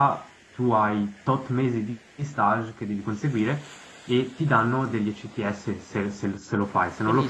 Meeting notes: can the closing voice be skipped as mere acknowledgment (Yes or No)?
No